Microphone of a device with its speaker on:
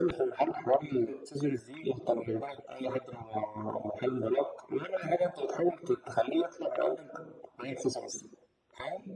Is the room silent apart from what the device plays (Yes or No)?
No